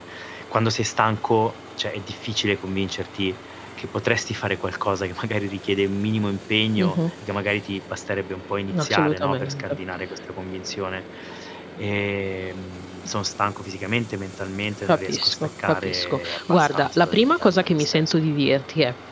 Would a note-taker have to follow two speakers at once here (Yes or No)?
Yes